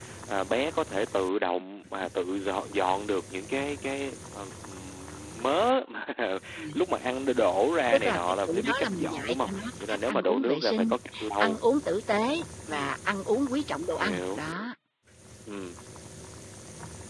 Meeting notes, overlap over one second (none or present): present